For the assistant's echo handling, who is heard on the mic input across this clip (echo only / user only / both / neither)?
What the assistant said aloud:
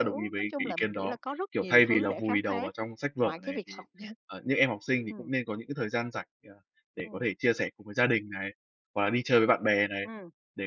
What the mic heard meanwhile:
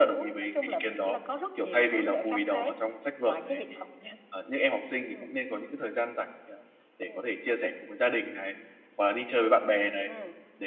echo only